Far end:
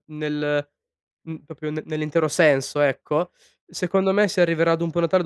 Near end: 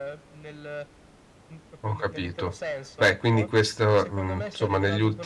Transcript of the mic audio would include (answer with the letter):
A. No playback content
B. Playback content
B